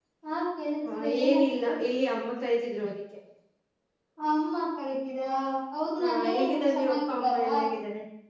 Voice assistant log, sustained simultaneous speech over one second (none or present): present